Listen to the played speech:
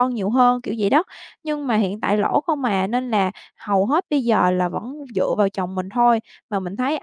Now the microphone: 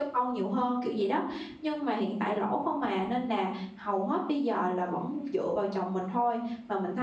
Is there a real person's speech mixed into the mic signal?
No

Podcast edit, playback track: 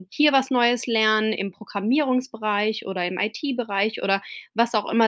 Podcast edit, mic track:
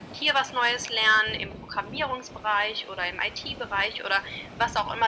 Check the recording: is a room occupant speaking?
No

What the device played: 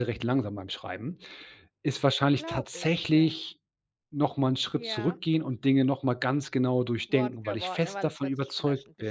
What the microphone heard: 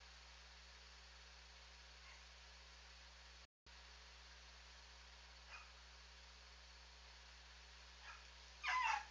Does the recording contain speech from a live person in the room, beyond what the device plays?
No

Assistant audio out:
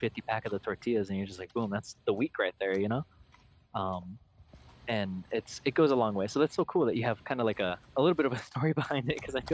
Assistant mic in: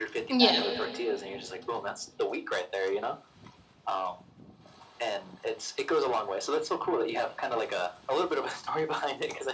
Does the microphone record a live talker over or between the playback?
Yes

